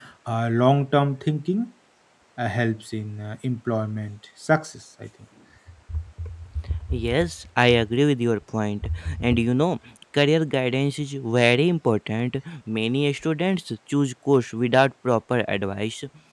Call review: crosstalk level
none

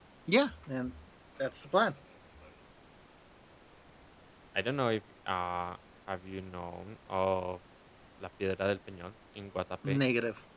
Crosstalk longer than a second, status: none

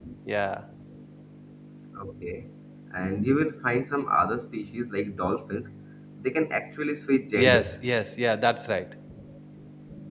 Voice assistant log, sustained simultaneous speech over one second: none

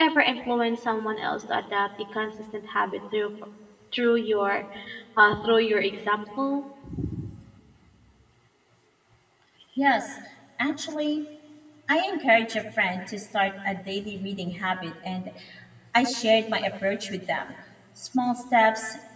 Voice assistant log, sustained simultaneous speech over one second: none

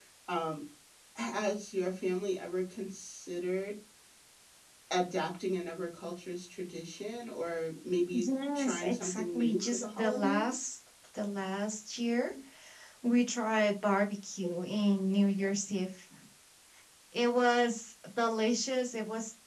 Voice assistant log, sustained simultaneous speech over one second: present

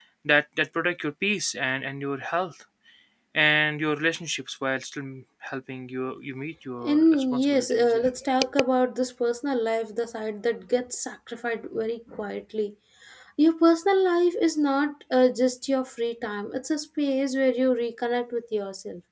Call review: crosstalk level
present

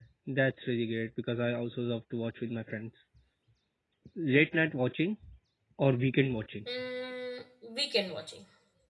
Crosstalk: none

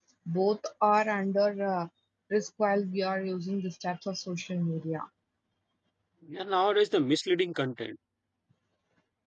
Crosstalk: none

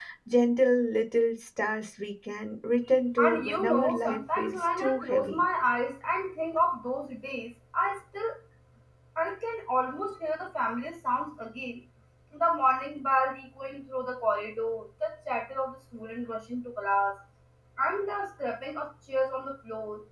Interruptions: present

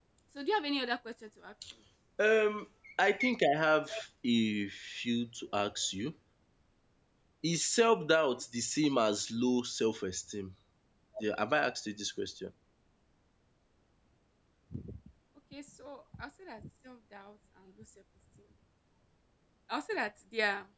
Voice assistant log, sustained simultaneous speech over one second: none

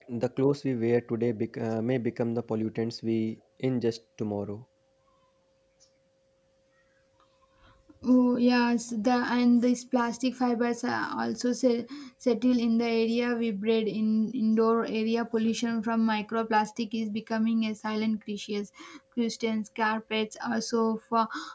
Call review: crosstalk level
none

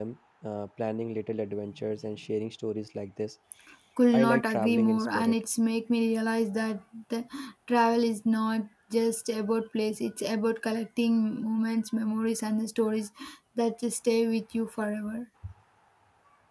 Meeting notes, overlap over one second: present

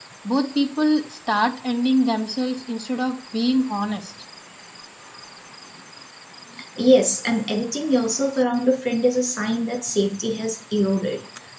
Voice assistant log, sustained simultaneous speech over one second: none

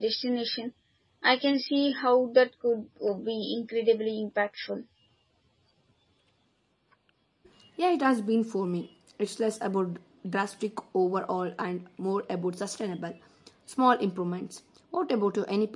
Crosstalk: none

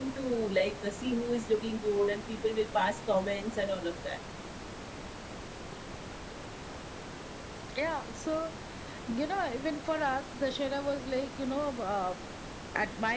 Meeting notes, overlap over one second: none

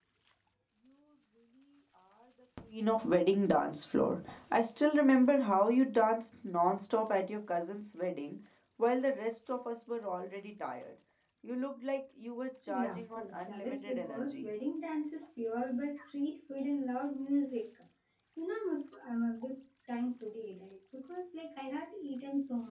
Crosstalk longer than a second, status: present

